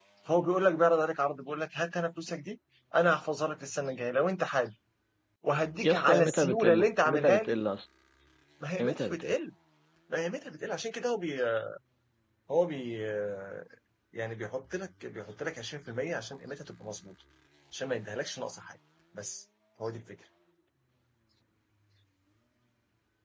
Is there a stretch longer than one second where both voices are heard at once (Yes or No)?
Yes